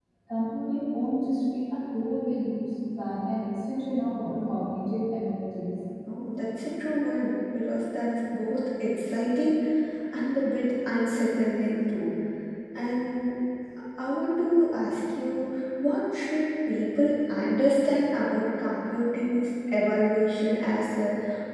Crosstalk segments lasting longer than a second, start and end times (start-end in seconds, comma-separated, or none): none